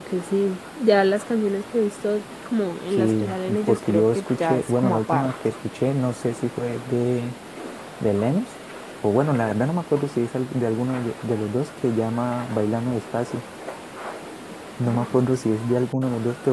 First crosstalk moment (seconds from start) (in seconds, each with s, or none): 2.9 s